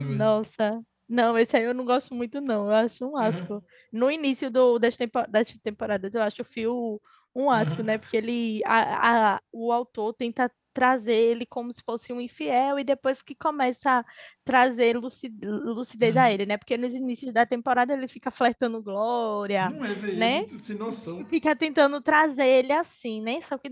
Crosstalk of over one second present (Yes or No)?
No